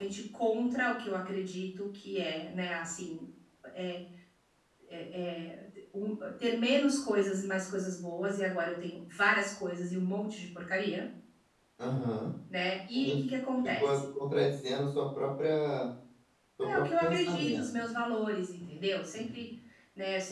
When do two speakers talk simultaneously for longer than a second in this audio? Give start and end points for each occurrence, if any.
16.6-17.8

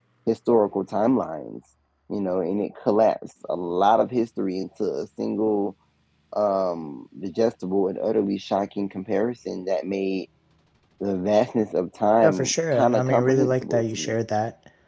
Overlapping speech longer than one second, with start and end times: 12.2-14.1

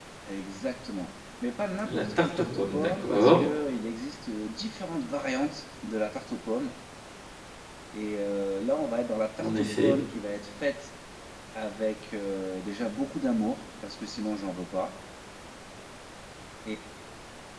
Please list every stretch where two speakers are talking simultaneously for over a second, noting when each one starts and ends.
1.9-3.4

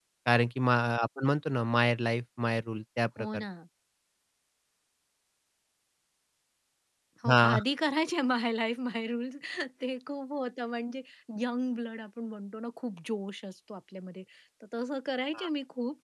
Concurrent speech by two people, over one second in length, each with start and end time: none

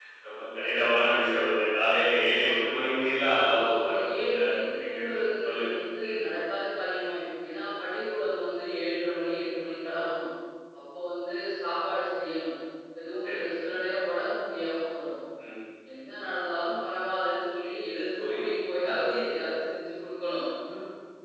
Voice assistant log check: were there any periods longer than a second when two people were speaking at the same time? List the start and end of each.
3.4-5.7

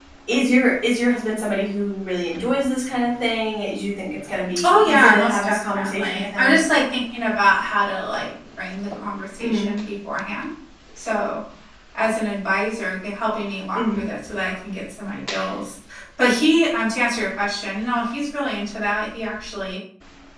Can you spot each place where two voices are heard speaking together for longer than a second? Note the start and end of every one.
4.6-6.6

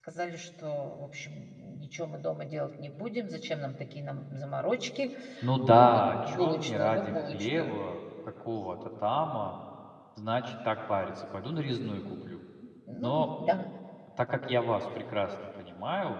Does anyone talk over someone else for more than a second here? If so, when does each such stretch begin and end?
5.7-7.8

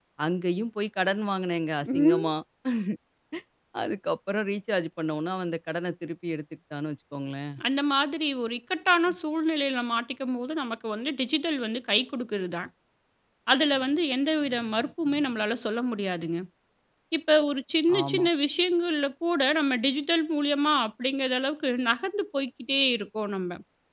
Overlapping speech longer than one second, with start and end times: none

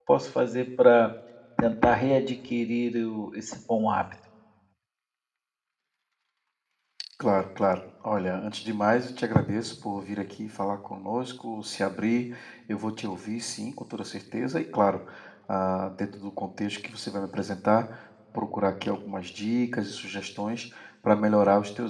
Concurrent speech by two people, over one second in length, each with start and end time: none

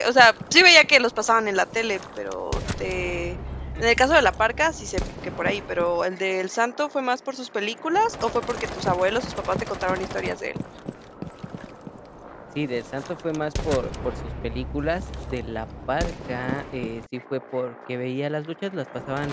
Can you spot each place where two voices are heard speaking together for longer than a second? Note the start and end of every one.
none

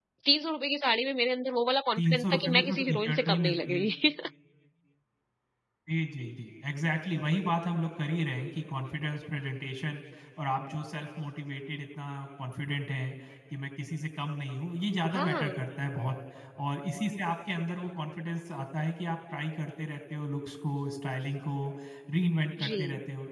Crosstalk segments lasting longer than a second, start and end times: 2.0-3.8

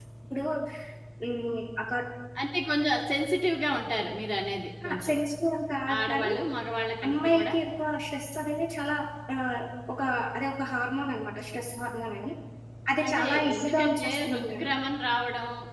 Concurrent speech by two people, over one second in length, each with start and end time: 13.0-14.6

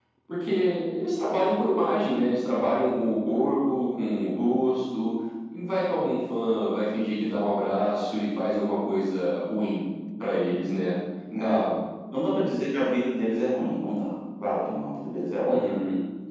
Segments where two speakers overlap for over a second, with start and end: none

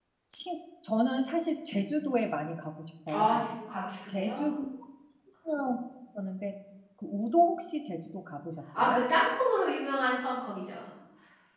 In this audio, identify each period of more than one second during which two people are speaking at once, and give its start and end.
none

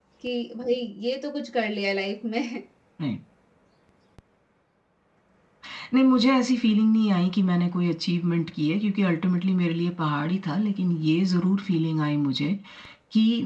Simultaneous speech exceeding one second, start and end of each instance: none

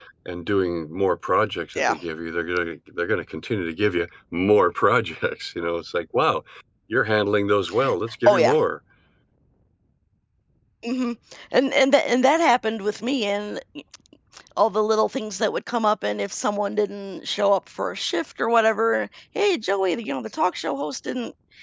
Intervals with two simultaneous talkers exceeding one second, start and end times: none

